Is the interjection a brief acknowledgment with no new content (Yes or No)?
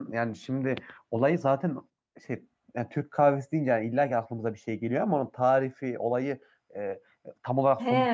No